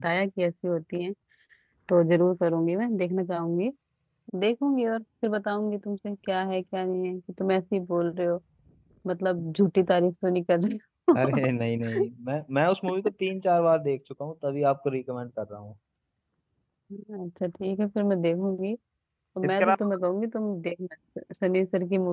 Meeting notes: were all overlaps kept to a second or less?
Yes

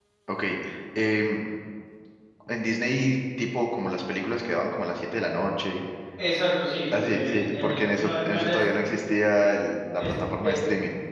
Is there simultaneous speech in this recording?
Yes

